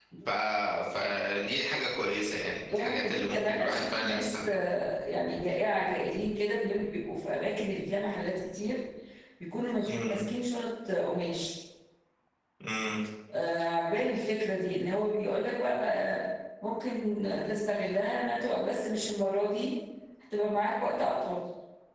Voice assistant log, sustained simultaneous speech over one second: present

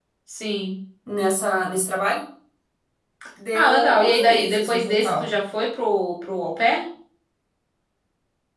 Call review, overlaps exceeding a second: present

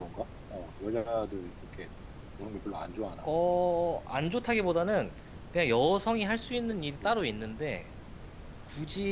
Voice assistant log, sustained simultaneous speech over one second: none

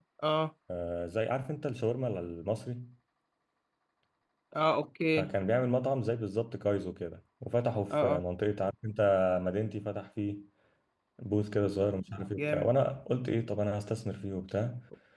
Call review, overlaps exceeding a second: none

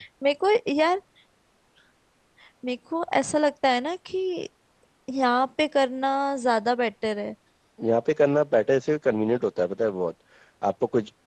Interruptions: none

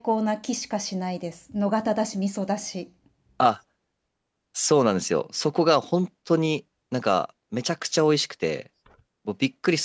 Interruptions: none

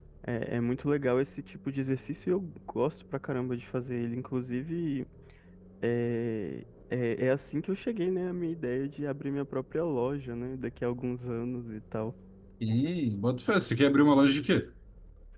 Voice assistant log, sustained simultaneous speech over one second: none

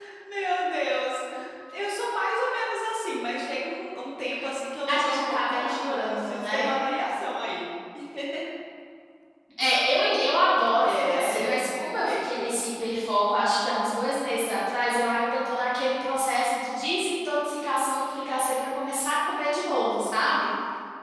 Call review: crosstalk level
present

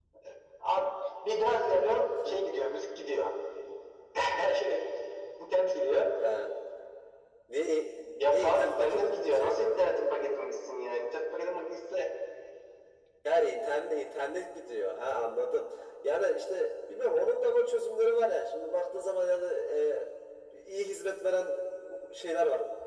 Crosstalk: present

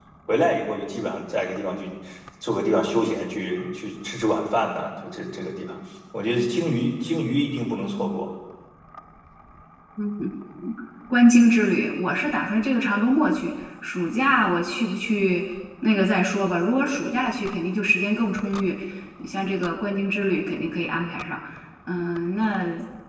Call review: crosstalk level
none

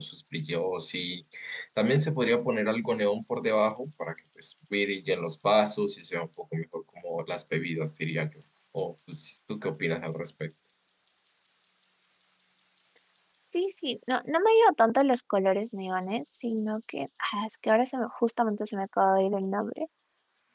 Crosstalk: none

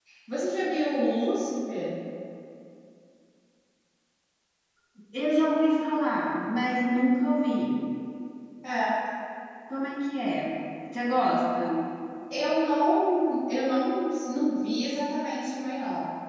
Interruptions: none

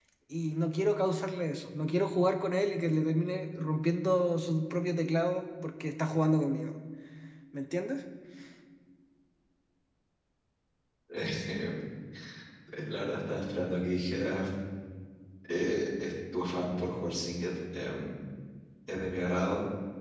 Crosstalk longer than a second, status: none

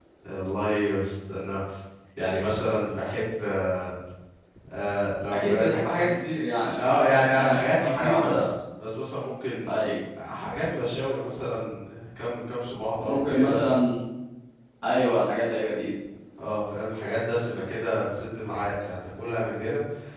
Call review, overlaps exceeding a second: present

